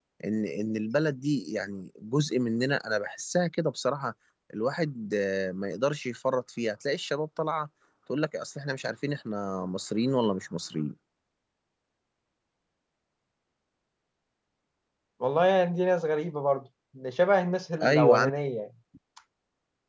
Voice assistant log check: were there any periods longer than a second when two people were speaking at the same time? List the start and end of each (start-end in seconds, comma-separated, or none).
none